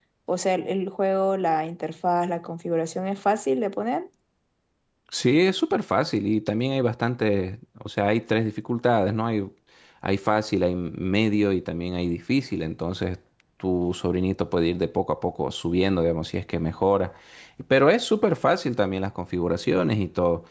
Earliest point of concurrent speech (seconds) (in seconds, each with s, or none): none